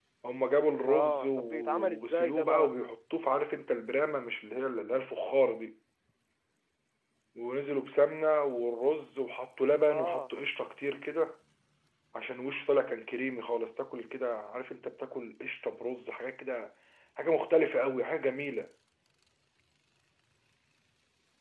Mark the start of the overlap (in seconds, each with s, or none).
0.9 s